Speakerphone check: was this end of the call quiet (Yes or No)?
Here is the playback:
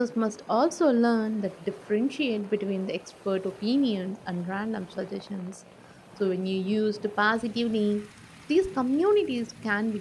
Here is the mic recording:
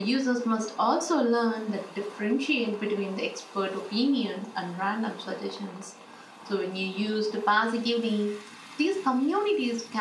Yes